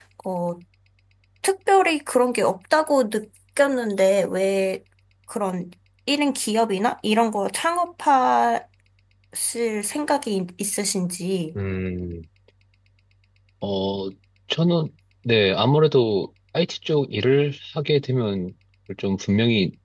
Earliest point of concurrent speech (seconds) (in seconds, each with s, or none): none